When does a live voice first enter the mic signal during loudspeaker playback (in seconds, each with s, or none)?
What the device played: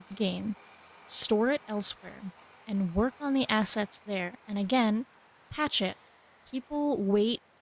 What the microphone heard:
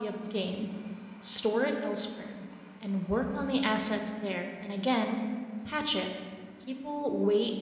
none